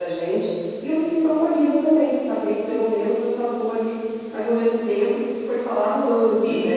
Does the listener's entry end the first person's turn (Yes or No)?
Yes